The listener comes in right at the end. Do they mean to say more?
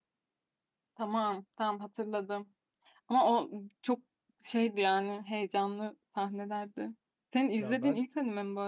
No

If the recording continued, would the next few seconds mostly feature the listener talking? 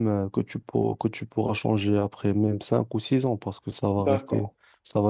Yes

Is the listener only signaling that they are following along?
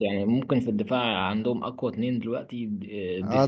No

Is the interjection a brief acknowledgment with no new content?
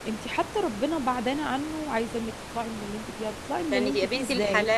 No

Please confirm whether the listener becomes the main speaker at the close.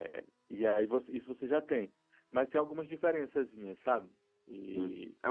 Yes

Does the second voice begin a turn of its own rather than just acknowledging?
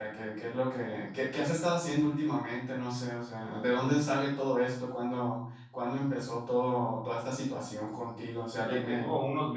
Yes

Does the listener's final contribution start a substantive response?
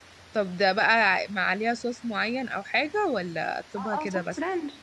Yes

